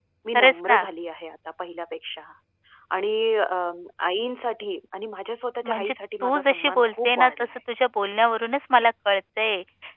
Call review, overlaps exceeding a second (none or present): present